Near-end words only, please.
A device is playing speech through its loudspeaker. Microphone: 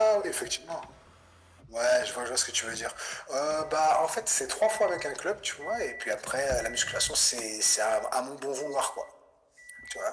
none

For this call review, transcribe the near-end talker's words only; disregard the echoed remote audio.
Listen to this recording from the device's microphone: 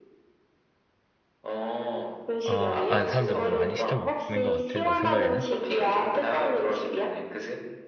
아, 아, 사람들이 좀 많이 시켜 먹는 것 같아. 너 생각에는?

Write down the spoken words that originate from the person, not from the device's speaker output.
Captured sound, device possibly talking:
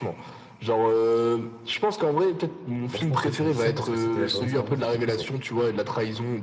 Moi je pense que tu me dis ça parce que c'était la journée Star Wars il y a quelques jours.

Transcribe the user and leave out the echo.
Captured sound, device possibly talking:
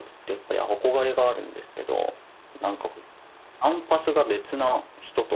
none

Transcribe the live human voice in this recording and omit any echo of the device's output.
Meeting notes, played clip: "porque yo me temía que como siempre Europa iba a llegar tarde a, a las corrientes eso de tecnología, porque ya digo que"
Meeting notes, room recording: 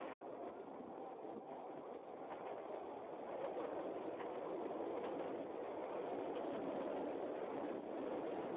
none

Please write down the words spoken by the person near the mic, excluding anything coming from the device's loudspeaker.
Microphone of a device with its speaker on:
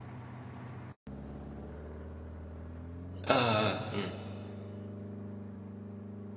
ああ、うん。

